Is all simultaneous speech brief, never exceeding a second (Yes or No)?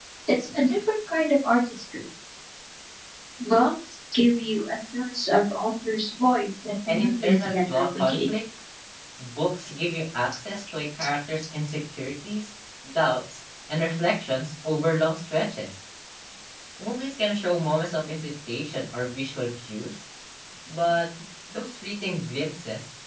No